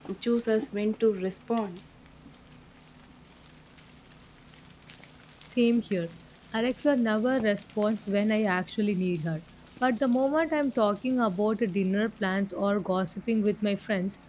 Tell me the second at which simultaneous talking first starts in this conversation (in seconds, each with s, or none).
none